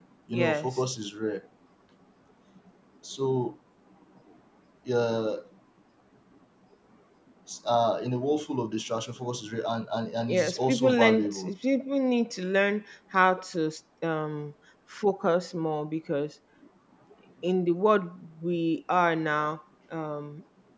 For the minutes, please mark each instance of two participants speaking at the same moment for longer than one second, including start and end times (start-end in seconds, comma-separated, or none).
10.3-11.5